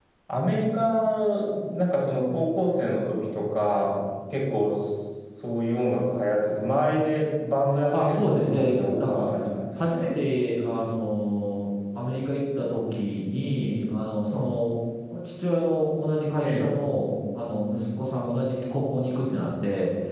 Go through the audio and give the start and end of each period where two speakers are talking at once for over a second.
7.9-9.2

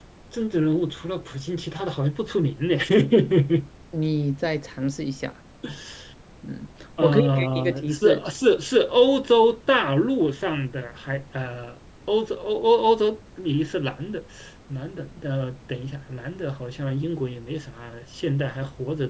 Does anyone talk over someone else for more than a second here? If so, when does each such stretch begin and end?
7.0-8.2

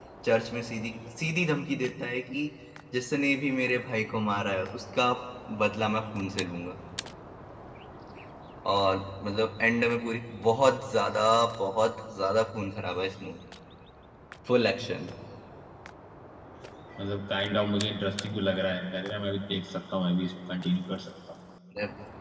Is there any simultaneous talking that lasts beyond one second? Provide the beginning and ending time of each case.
none

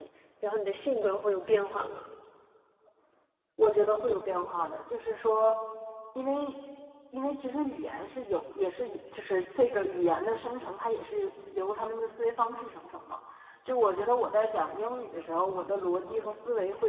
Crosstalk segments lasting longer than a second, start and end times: none

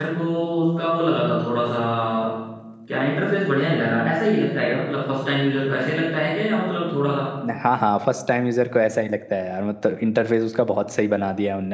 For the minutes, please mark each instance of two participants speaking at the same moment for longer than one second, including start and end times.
none

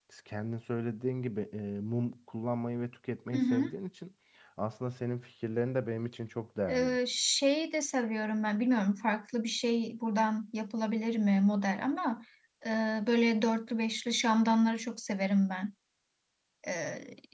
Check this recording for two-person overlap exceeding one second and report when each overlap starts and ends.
none

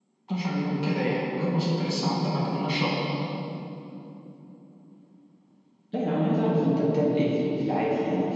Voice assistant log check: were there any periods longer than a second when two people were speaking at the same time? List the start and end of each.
none

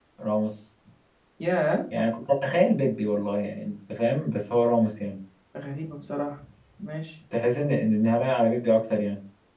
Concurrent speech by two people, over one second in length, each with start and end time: none

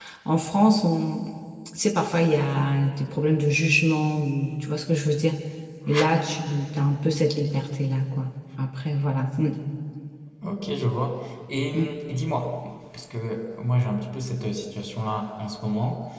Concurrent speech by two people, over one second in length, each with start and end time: none

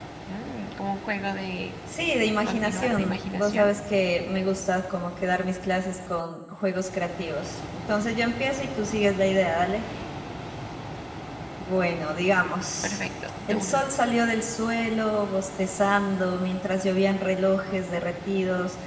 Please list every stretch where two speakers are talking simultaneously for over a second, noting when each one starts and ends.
2.5-3.7

